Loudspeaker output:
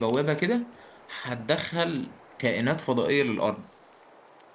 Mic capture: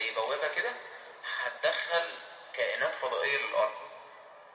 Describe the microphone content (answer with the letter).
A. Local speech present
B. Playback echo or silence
B